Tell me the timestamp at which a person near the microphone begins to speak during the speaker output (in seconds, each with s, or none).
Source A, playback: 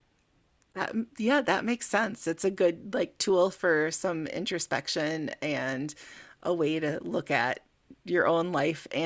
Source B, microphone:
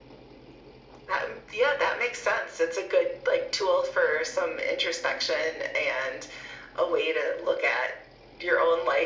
none